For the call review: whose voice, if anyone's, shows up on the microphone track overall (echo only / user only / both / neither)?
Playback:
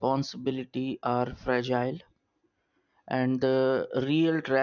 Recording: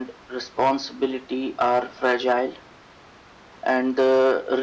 echo only